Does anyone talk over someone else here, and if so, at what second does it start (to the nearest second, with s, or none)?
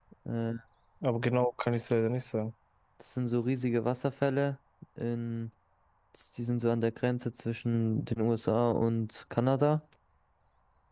none